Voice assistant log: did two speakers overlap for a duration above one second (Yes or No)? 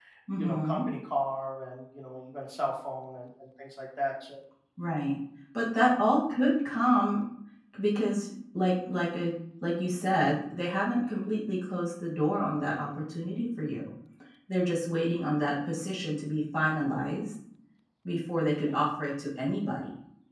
No